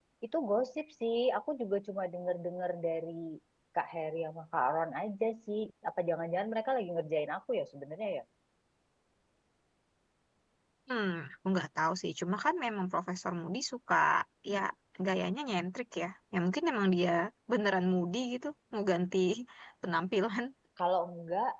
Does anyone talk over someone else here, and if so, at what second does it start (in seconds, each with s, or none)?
none